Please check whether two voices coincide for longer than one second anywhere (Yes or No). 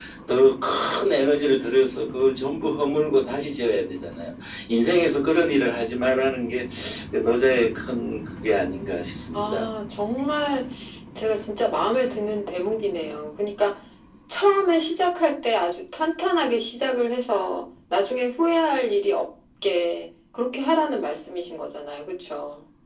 No